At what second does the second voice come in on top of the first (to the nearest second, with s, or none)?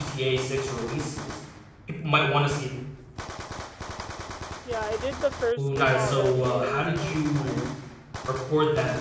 6 s